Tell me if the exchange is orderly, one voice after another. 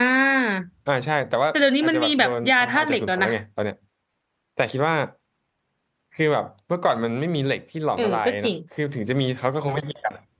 No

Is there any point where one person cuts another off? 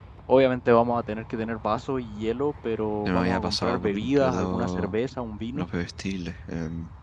Yes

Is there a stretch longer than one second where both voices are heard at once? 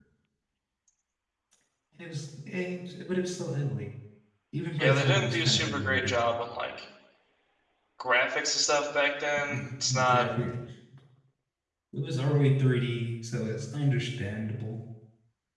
Yes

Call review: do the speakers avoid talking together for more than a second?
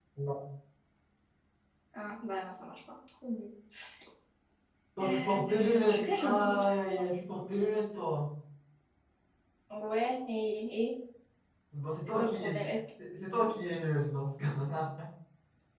No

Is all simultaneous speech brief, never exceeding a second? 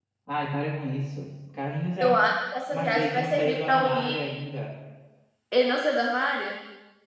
No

